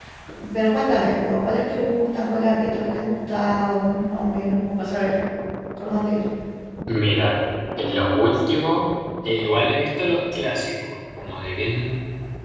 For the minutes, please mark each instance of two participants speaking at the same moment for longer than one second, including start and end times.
none

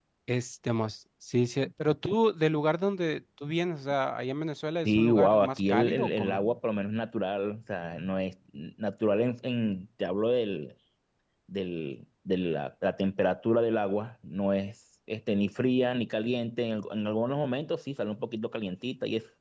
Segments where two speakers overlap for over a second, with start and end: 4.8-6.4

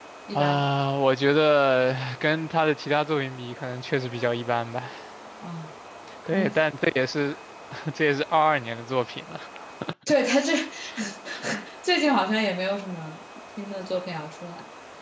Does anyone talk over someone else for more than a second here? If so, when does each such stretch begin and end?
none

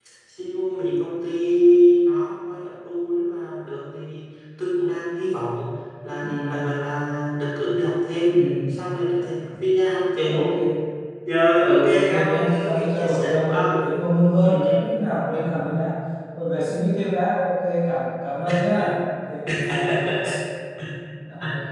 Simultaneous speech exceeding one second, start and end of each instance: 11.6-13.8

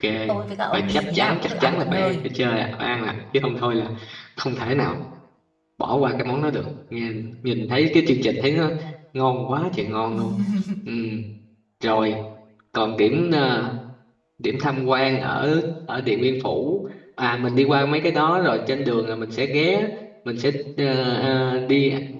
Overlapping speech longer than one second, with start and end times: 0.7-2.2

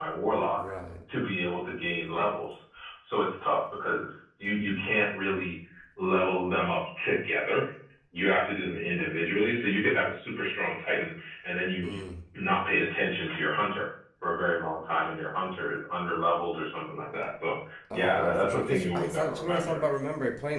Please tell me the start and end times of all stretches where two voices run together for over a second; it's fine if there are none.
17.9-19.8

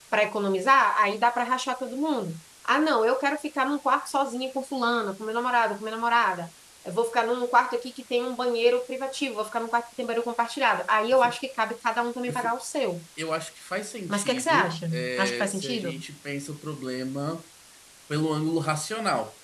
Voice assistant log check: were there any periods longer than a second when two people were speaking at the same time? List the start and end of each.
14.1-16.0

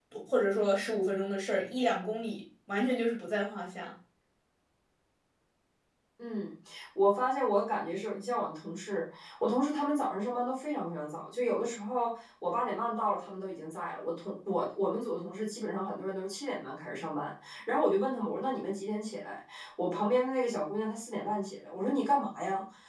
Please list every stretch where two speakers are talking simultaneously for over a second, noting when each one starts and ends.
none

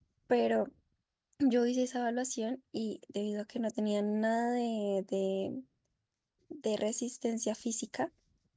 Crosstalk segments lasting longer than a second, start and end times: none

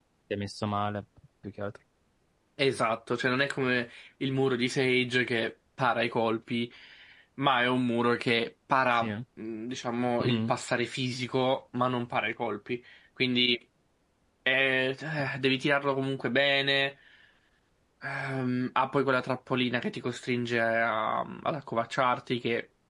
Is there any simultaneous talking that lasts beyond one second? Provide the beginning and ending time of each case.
none

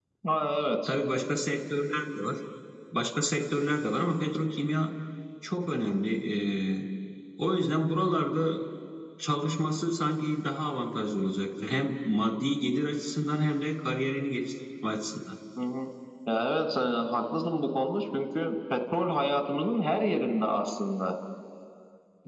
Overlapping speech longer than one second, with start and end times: none

